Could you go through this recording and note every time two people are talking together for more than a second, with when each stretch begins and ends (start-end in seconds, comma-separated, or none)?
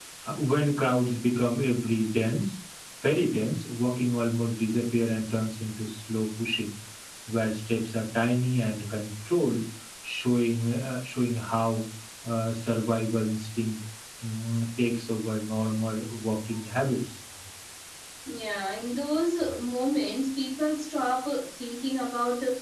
none